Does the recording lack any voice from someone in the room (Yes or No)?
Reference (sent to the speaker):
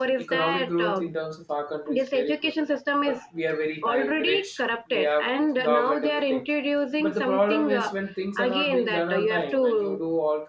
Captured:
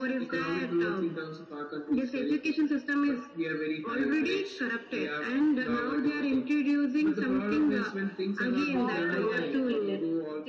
No